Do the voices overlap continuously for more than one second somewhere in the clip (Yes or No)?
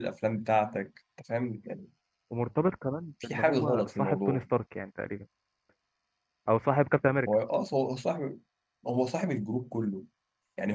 Yes